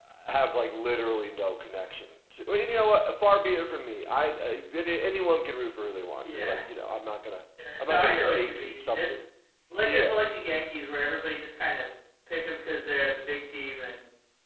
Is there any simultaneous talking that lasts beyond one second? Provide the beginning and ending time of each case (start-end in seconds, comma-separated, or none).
7.8-9.1